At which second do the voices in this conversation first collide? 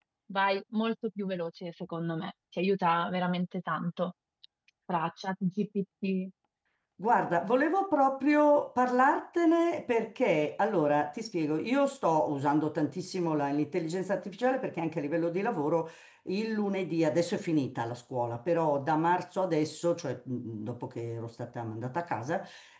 none

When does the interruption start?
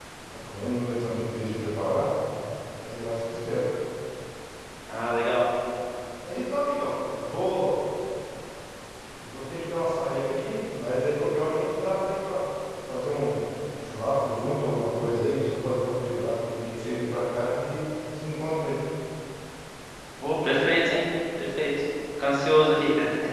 none

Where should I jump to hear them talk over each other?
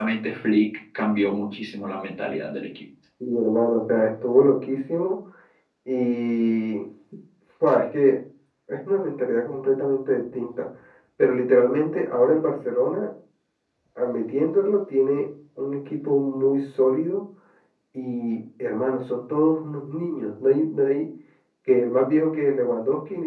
none

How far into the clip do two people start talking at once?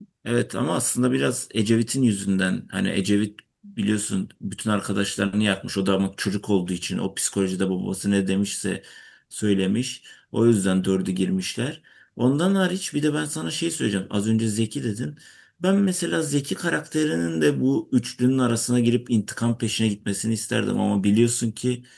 none

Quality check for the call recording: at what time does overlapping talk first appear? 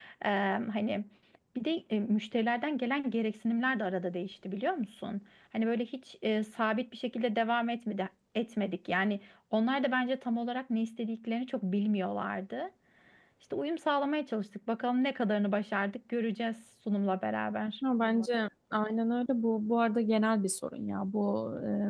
none

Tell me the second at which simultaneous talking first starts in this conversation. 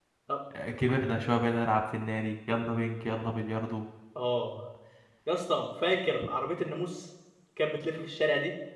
none

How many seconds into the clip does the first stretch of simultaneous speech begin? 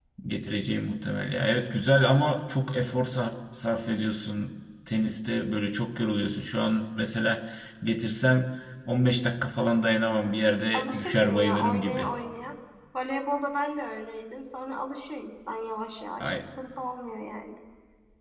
10.7 s

